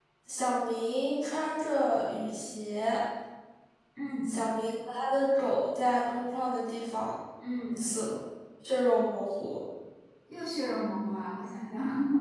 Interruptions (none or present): none